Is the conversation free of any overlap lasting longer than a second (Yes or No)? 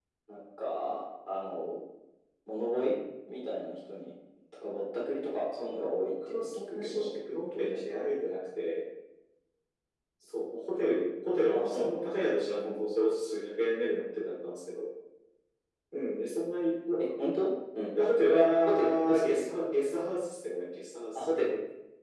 No